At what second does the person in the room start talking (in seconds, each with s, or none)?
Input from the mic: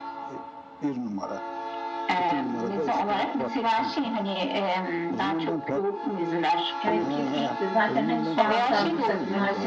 6.8 s